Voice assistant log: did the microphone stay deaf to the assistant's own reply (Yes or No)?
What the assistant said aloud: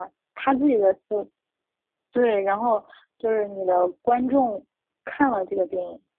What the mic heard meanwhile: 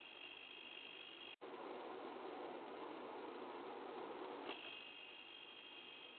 Yes